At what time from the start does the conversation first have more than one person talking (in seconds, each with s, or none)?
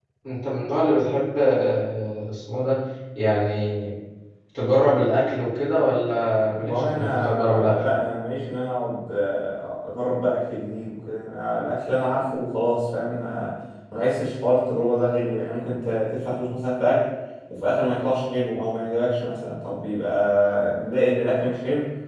6.5 s